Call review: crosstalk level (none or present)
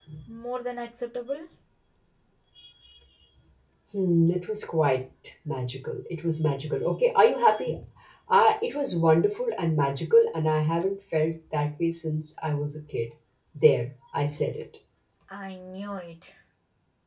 none